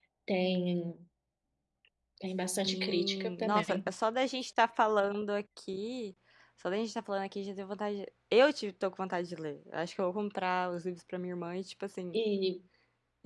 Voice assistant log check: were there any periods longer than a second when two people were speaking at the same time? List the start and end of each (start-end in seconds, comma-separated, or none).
2.6-3.9